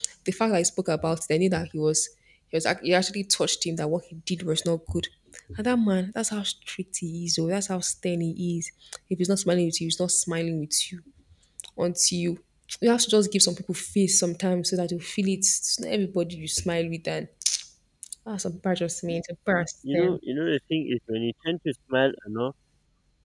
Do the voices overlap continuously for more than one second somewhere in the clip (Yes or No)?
No